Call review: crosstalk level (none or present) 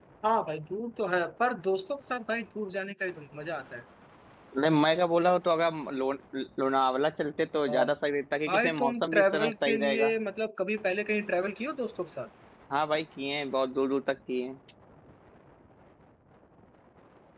present